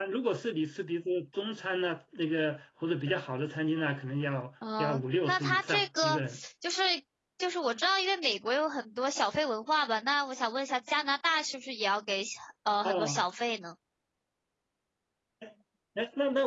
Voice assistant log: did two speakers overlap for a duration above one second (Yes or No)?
Yes